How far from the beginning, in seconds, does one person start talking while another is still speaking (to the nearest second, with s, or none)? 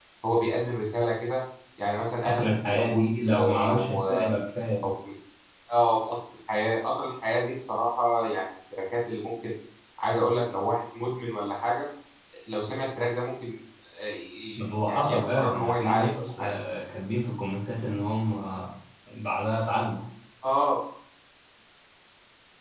2 s